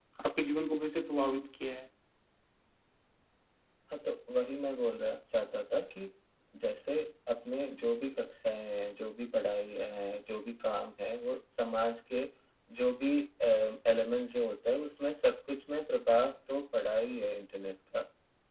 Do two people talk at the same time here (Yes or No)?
No